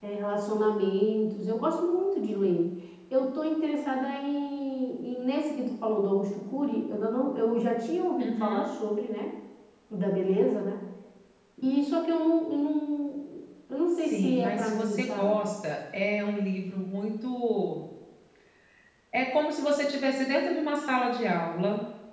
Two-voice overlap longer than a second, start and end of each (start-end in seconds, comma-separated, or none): 14.1-15.4